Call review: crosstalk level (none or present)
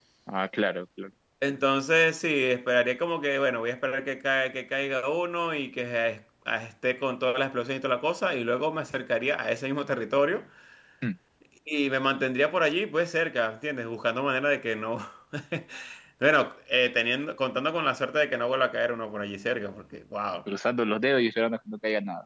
none